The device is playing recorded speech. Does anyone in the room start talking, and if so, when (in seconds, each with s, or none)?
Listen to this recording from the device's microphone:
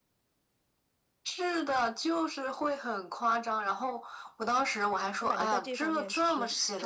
5.2 s